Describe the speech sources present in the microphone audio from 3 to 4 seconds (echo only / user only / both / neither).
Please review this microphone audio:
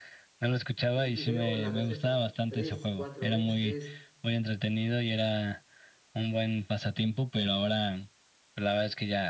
both